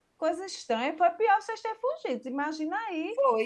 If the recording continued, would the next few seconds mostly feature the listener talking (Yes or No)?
No